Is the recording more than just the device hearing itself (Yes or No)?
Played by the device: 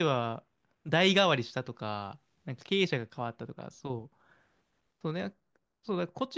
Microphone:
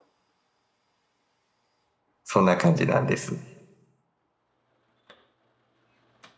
Yes